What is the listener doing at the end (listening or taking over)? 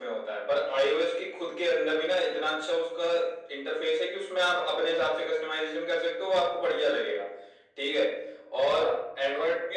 listening